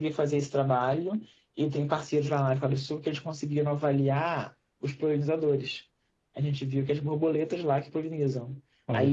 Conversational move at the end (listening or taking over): listening